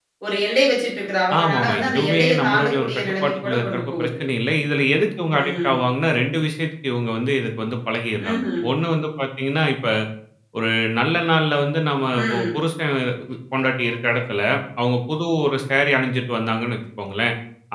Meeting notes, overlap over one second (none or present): present